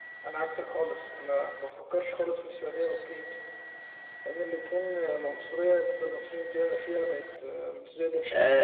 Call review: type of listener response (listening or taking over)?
taking over